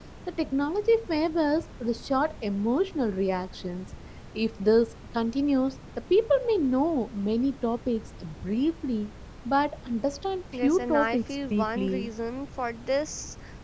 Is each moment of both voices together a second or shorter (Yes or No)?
No